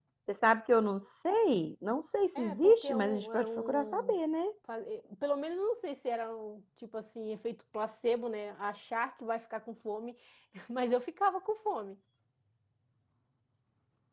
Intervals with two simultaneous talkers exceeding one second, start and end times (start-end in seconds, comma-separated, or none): 2.4-4.1